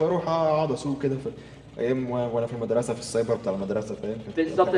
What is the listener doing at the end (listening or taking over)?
taking over